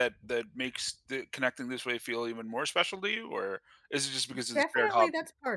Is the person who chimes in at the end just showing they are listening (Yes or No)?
No